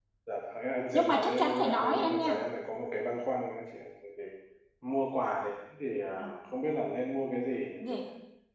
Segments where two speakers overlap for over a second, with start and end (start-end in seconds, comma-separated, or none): 0.9-2.4